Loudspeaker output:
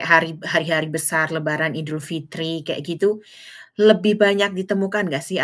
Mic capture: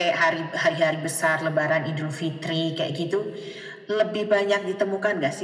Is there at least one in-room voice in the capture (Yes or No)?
No